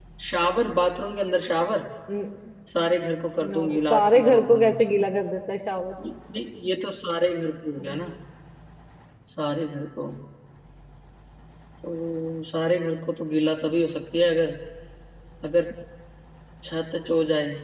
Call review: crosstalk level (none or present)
present